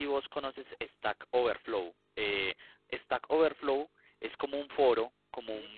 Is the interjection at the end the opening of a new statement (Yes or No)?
No